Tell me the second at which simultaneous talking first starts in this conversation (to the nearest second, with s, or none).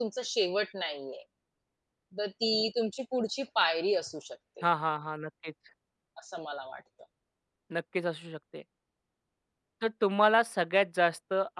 none